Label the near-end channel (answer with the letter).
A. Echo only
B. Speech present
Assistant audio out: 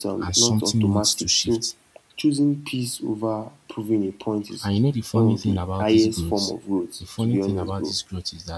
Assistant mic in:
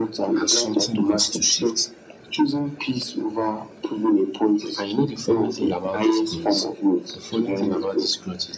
A